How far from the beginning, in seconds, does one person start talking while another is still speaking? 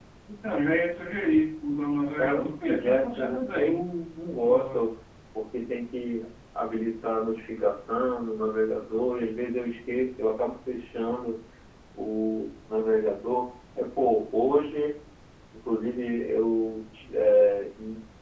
2.2 s

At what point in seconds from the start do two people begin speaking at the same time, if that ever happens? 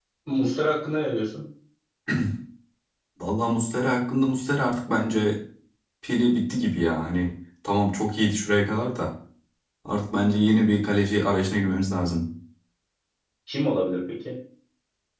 none

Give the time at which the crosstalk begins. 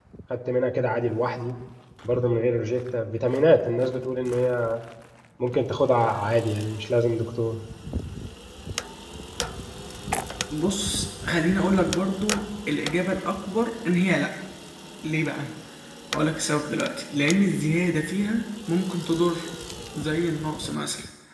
none

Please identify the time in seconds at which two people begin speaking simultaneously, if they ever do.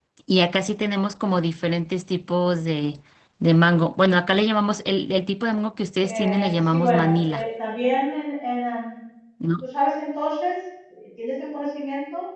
6.0 s

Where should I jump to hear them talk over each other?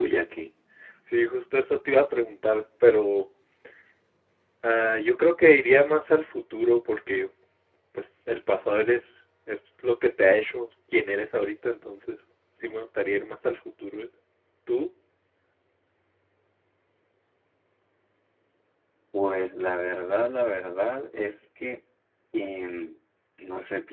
none

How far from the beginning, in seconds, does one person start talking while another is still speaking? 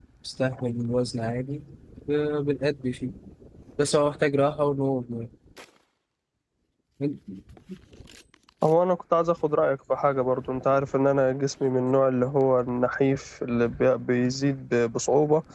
none

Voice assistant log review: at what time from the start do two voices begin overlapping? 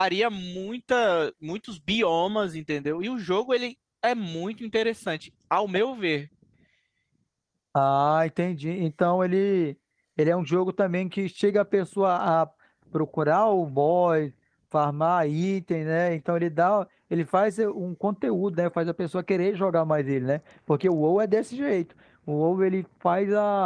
none

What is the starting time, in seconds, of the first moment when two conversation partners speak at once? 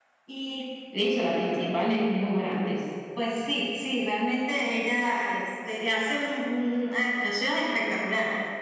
none

